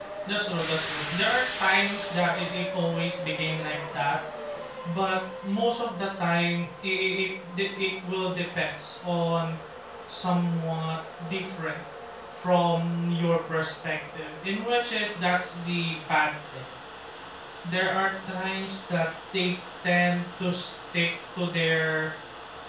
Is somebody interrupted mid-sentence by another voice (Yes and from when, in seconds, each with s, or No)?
No